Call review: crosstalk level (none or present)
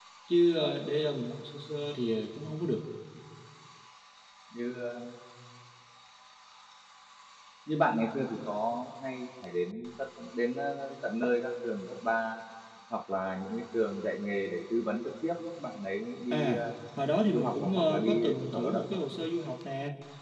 present